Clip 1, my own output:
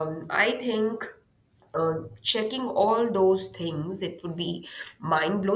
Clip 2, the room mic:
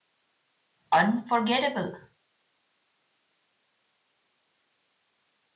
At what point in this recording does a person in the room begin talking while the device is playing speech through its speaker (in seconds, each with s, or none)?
0.9 s